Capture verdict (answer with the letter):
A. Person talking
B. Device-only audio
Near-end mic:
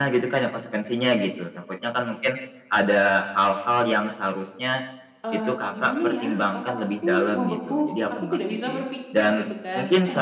A